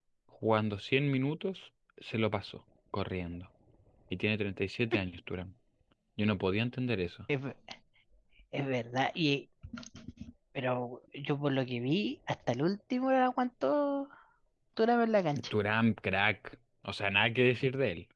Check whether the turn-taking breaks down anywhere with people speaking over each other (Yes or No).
No